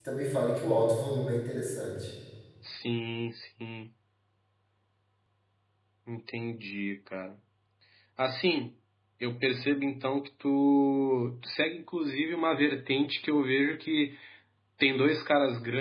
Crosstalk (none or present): none